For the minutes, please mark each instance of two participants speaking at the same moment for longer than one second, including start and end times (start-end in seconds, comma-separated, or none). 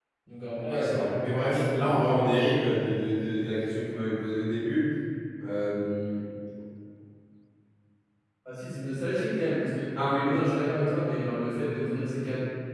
0.6-1.9